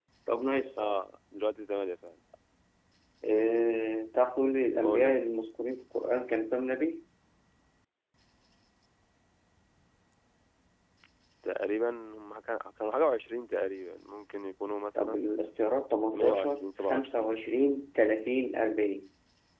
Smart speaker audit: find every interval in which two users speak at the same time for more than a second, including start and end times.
16.1-17.4

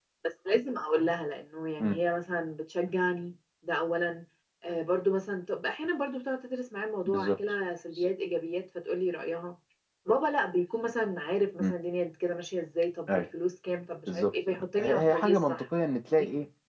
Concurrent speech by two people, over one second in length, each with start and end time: 14.1-15.6

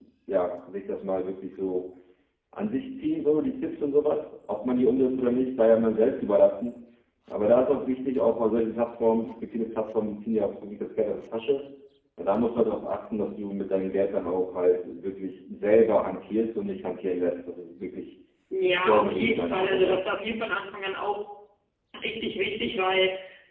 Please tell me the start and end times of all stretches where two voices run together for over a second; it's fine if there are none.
18.7-20.0

